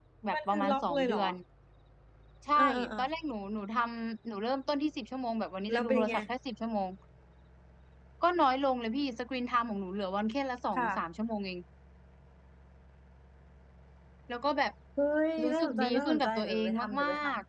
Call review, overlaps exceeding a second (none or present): present